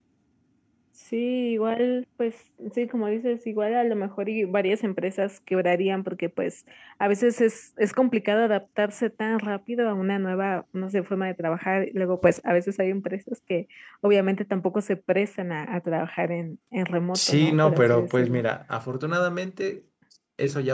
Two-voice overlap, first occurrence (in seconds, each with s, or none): 17.1 s